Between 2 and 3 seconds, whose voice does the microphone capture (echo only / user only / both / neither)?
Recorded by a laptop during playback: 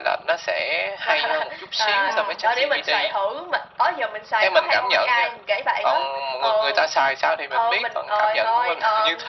both